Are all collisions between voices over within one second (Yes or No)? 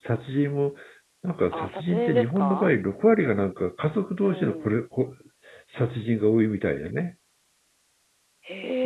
No